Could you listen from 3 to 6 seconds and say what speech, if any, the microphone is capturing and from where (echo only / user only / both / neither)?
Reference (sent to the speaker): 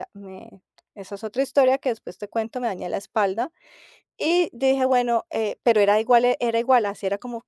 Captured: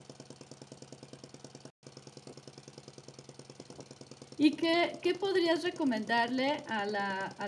user only